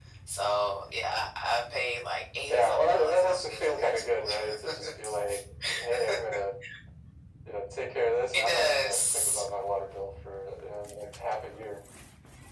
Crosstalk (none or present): present